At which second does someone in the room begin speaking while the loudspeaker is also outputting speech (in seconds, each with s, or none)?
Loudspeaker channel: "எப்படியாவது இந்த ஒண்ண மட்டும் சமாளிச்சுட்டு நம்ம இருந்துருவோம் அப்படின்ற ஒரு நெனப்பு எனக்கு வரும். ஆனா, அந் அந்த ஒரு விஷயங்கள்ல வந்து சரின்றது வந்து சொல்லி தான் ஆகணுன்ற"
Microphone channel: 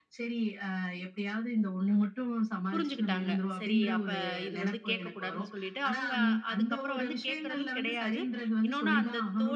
2.7 s